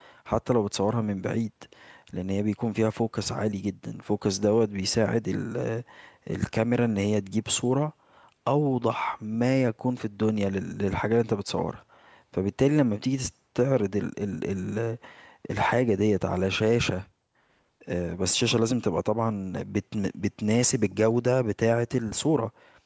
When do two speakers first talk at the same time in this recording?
none

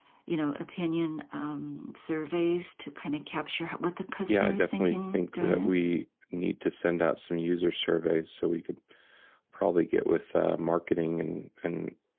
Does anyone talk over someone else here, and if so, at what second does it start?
4 s

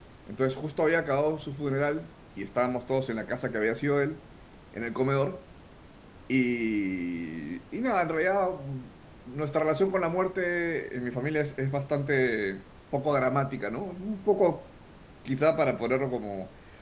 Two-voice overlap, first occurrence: none

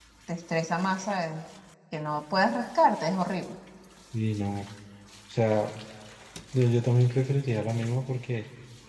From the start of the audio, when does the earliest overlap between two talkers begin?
none

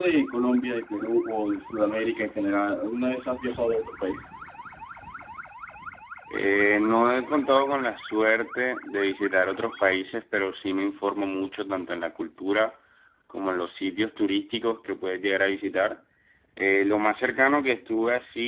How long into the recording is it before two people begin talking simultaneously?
none

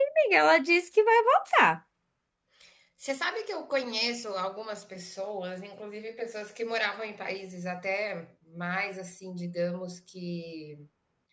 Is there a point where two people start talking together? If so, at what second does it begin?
none

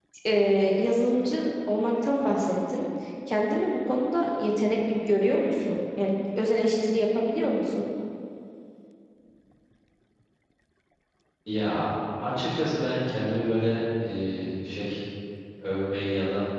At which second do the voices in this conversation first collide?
none

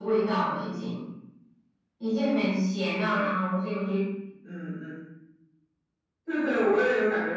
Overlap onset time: none

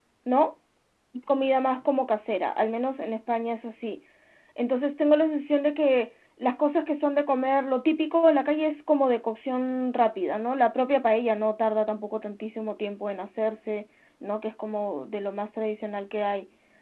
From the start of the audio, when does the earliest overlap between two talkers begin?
none

